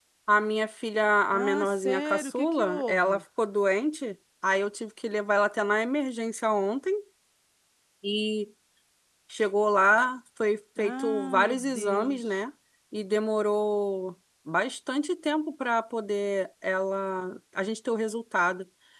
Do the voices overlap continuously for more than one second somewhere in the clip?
Yes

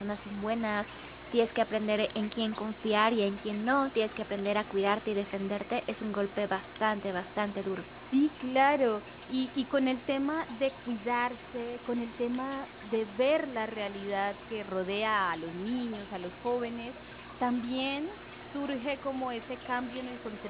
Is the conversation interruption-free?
Yes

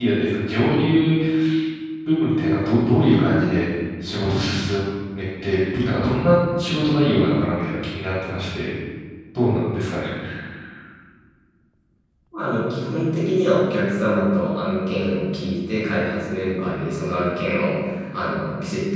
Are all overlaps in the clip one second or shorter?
Yes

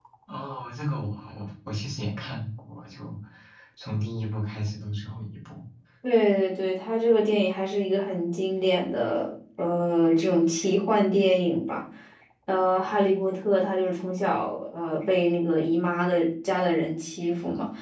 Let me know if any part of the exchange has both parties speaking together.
No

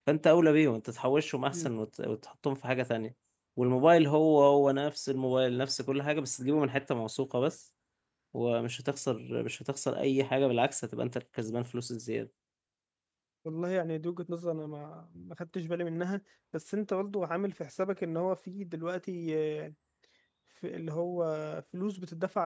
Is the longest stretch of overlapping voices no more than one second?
Yes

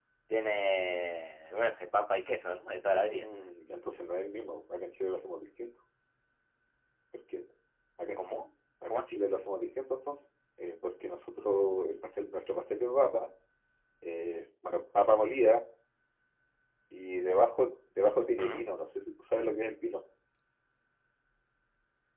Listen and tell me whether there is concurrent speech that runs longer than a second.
No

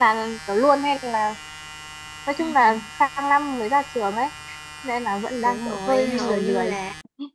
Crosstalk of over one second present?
Yes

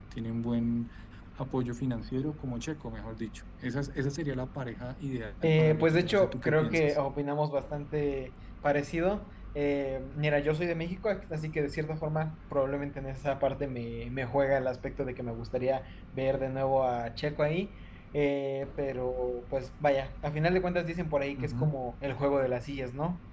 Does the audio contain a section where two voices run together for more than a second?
Yes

